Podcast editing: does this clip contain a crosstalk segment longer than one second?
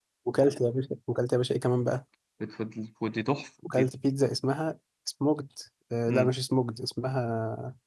No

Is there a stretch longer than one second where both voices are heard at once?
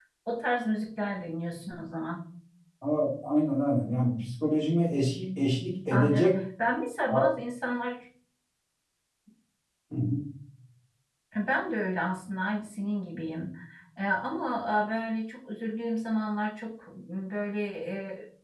No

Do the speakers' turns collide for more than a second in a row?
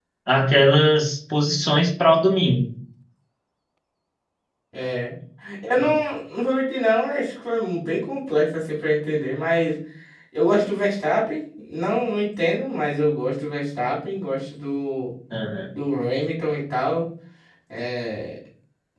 No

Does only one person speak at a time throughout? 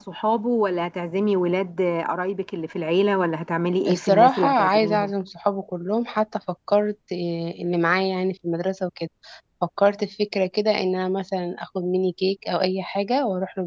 No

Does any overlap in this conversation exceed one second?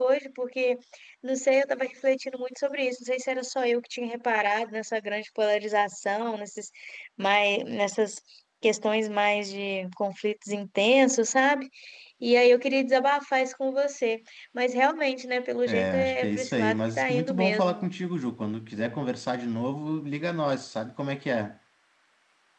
Yes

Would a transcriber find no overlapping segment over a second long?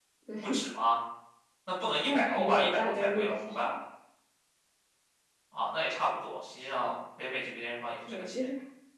No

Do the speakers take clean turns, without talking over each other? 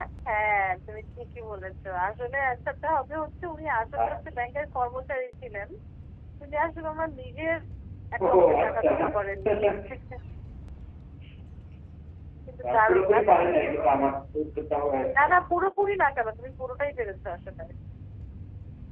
No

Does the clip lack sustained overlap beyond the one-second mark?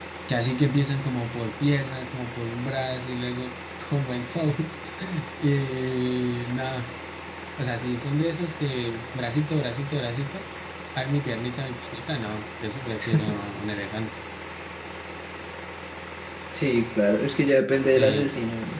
Yes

